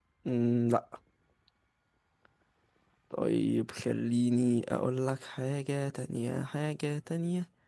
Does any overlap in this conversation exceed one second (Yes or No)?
No